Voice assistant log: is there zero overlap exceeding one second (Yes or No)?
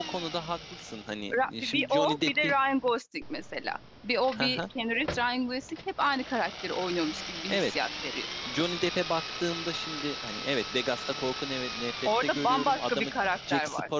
No